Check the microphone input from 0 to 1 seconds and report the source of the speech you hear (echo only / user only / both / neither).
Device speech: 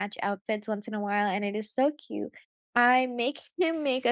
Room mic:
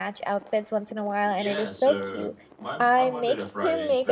echo only